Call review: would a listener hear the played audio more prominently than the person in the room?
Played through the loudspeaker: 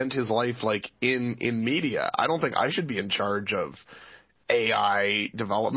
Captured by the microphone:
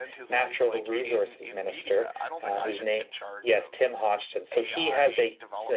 No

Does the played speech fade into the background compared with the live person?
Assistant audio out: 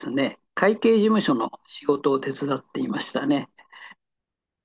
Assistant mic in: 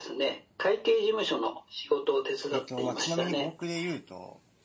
No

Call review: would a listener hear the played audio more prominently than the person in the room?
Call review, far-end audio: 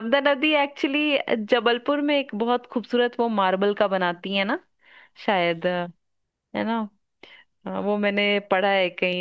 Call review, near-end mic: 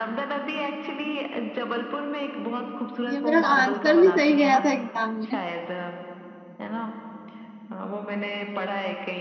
No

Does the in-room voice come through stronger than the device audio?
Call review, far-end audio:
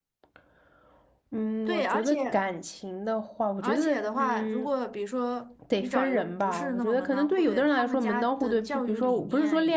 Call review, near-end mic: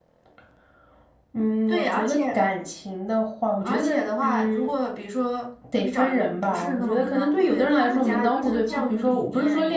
No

